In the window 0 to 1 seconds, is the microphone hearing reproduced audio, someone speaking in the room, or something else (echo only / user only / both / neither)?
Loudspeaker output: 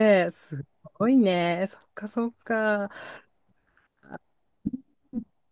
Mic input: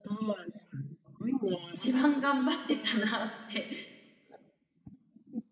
echo only